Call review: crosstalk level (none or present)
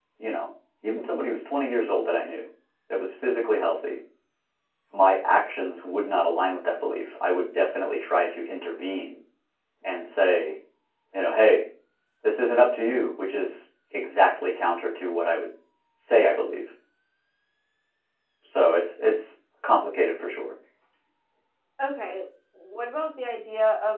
none